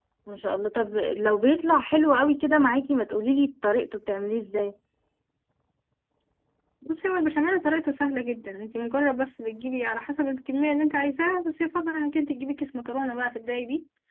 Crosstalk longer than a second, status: none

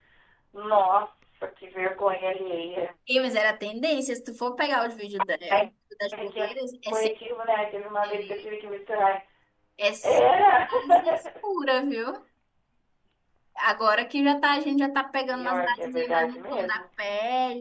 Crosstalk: present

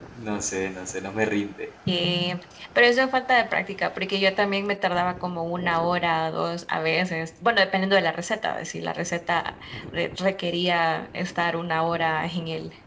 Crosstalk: none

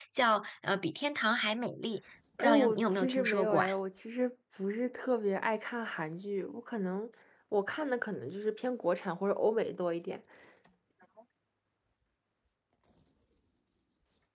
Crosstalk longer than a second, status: present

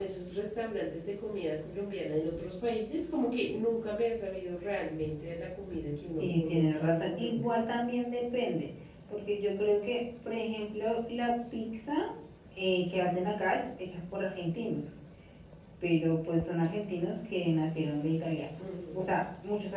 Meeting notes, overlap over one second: present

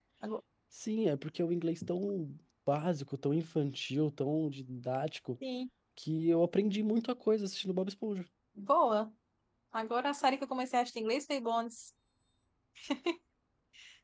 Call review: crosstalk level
none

